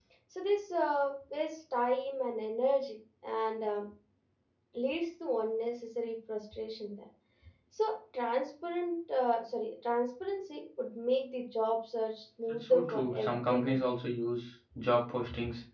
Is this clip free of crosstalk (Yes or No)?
No